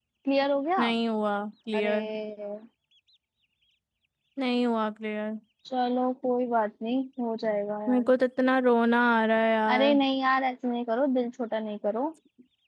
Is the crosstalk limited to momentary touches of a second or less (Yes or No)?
Yes